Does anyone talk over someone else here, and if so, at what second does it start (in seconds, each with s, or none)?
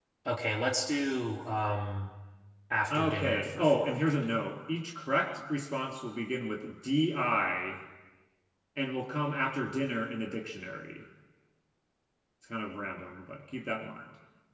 2.9 s